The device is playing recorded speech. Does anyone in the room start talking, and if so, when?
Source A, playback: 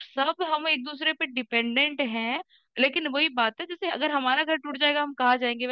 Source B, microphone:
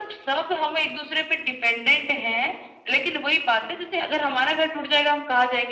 none

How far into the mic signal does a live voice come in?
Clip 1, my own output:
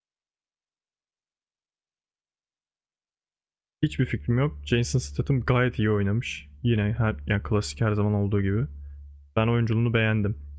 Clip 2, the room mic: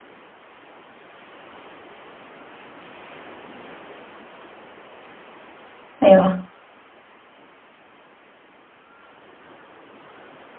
6.0 s

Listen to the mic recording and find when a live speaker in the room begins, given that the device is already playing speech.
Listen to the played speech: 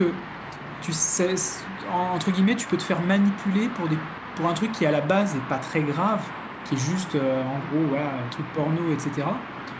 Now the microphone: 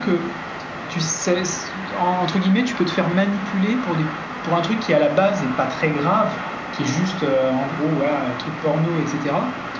none

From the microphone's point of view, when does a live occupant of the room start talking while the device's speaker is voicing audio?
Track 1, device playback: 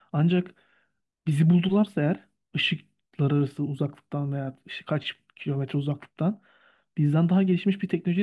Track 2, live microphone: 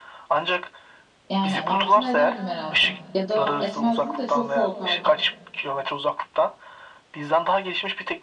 1.3 s

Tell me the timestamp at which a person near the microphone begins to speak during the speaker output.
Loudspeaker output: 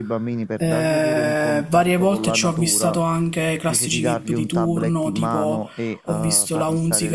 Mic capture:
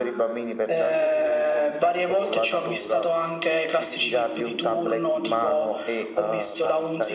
none

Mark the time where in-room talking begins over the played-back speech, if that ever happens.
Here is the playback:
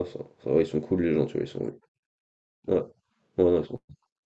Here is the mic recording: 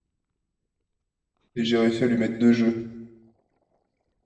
1.5 s

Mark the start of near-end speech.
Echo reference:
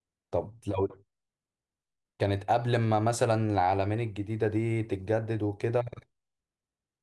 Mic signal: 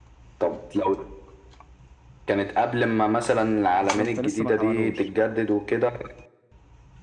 3.8 s

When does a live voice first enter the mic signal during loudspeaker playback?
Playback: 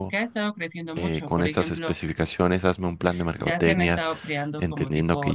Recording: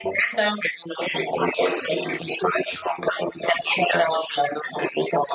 none

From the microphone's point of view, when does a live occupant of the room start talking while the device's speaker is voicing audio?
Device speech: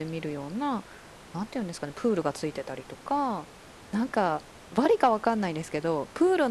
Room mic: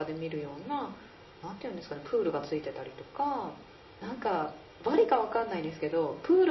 none

